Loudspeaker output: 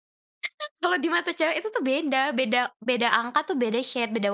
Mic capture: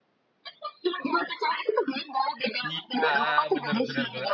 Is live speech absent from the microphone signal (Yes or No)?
No